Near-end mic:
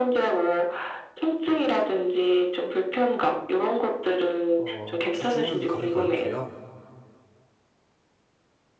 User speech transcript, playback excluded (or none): 어 주중은 거의 그렇고요.